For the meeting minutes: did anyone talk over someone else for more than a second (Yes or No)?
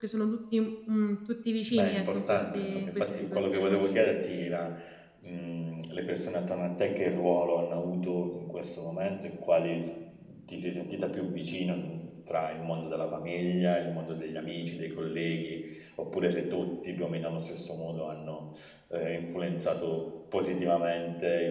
Yes